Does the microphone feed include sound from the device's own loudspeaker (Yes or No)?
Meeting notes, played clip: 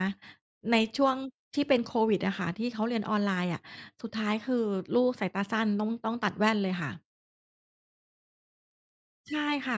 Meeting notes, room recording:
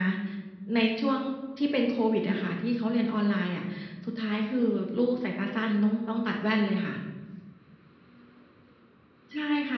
Yes